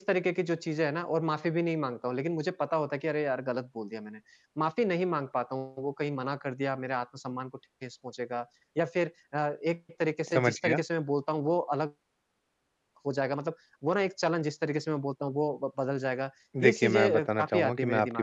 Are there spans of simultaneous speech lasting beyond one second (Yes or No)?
Yes